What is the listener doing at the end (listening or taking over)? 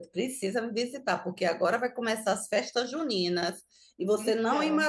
listening